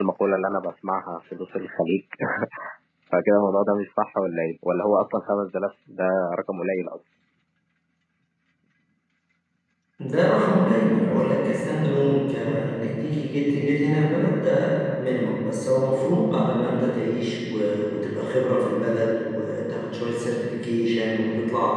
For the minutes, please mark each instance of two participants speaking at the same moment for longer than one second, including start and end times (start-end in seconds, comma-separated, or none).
none